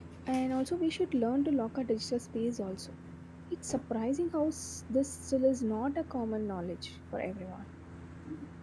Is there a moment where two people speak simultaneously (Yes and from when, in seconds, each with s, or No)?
No